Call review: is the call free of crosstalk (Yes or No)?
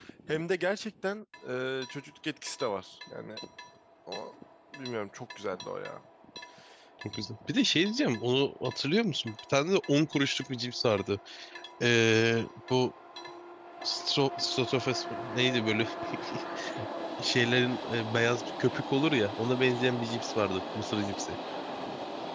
Yes